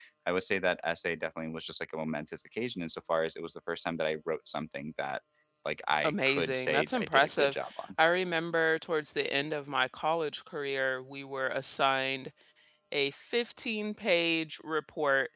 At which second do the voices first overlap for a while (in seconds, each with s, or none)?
6.0 s